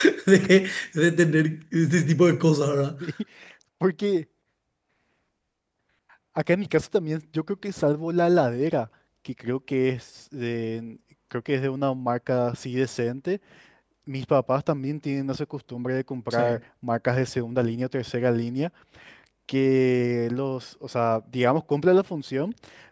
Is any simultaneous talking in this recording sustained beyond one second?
No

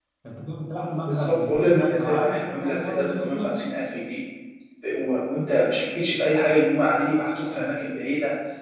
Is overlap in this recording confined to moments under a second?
No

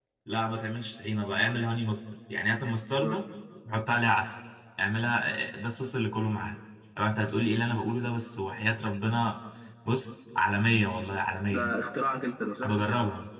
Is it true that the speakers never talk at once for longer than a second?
Yes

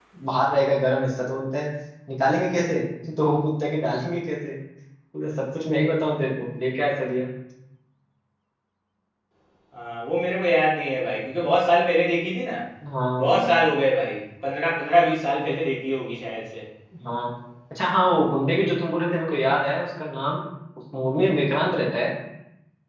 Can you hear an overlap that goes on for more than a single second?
No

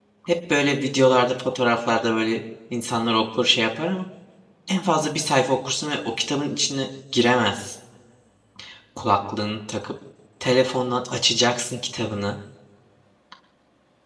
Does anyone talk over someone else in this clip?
No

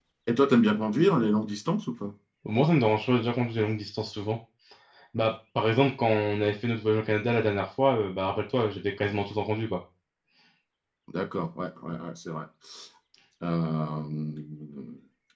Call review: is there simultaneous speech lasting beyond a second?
No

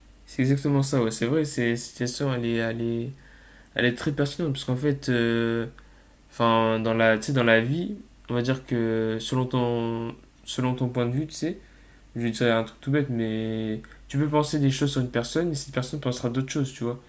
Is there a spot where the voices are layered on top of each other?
No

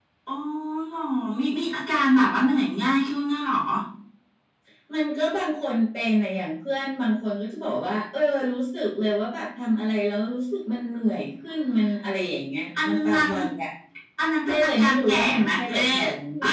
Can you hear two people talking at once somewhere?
Yes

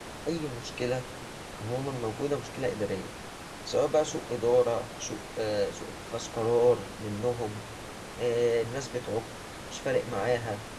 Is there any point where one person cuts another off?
No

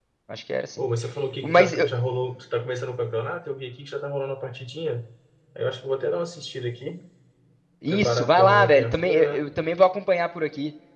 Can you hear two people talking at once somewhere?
Yes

